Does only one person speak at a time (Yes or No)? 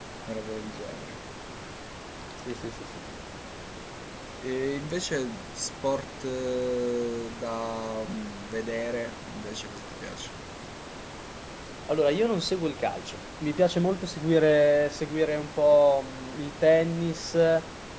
Yes